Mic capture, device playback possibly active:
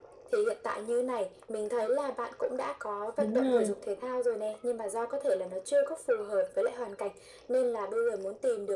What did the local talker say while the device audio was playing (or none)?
Đúng rồi.